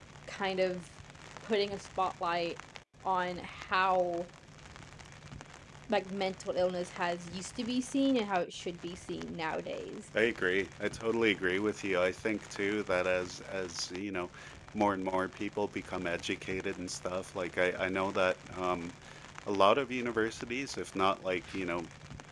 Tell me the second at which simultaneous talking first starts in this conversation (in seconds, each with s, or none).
none